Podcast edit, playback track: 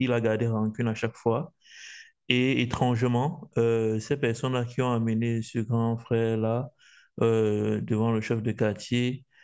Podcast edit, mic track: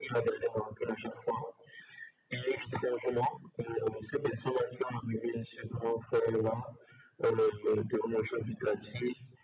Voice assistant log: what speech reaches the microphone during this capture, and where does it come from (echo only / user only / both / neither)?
echo only